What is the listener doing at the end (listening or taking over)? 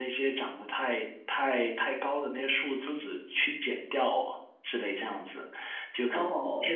listening